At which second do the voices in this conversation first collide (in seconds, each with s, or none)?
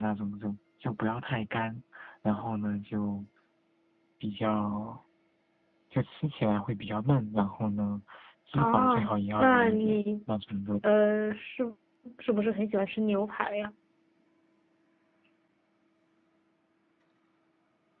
8.5 s